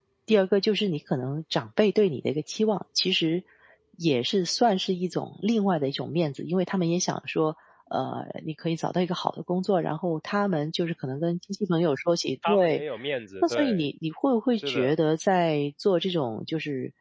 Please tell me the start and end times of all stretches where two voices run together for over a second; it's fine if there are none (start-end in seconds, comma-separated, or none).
none